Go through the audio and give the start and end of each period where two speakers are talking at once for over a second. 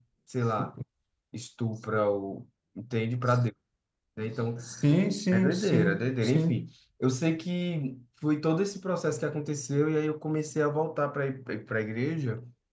5.3-6.6

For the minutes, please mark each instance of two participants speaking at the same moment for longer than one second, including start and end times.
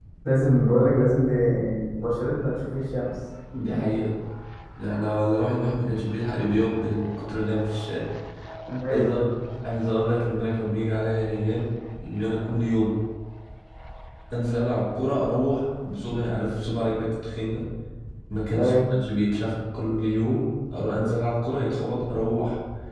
none

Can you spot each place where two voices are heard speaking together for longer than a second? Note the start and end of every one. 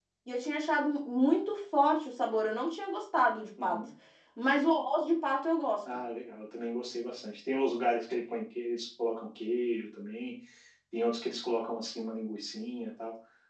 none

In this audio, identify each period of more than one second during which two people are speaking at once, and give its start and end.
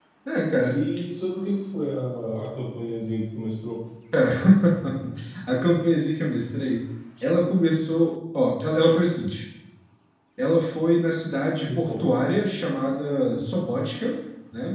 none

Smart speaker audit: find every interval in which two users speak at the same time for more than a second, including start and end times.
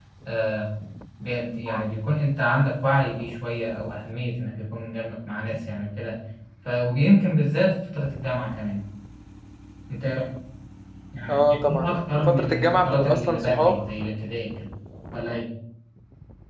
12.3-13.7

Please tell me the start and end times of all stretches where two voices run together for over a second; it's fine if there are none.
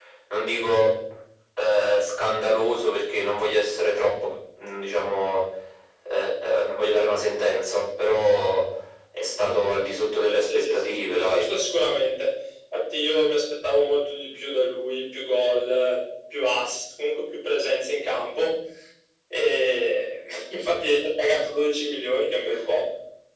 10.2-11.5

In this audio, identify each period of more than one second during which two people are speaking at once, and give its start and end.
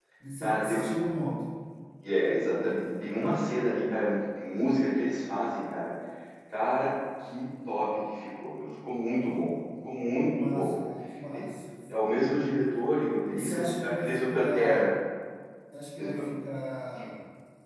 13.3-14.9

